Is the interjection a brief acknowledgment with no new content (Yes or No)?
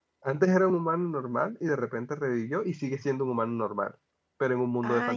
No